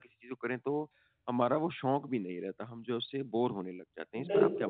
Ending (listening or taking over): taking over